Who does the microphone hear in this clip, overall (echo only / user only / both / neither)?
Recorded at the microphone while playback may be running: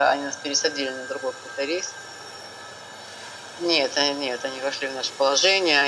echo only